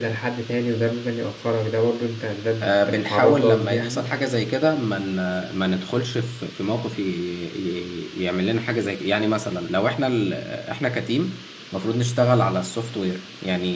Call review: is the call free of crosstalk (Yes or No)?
No